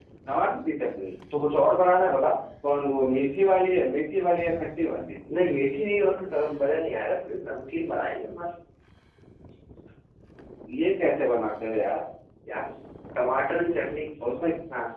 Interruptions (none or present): none